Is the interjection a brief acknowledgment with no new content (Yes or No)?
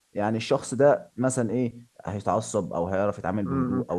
No